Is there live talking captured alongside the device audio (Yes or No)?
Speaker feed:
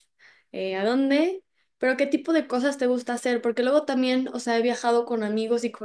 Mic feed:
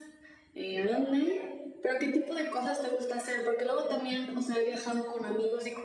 No